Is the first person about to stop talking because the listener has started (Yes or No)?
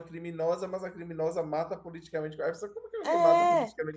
Yes